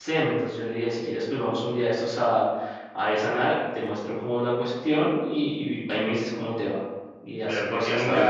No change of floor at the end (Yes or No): No